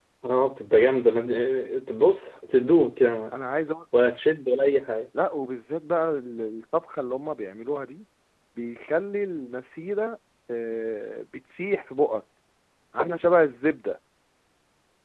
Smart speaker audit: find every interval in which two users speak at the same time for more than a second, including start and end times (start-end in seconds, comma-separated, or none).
none